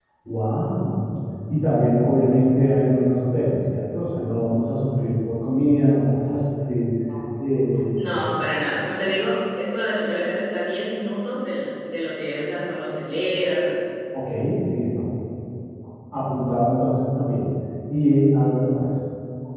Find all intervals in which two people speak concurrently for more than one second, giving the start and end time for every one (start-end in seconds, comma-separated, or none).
none